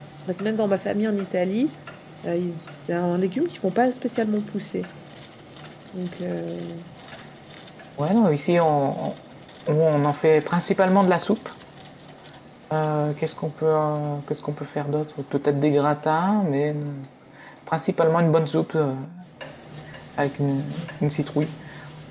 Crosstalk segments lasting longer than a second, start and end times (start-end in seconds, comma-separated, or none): none